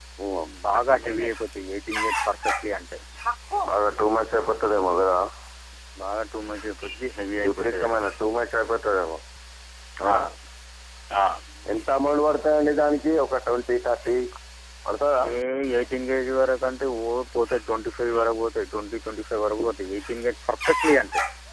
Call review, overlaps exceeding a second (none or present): none